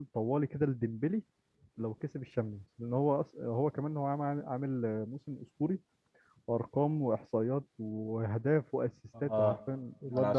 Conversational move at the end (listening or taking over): taking over